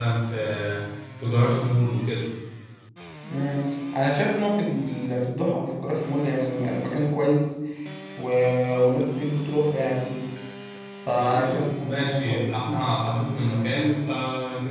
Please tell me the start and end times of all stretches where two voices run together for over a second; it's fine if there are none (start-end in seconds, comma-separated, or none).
11.2-12.4